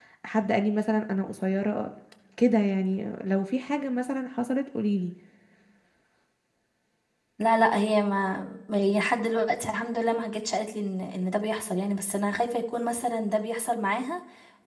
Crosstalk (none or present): none